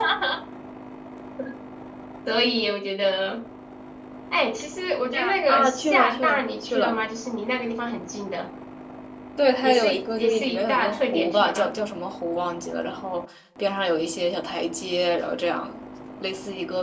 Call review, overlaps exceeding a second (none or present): present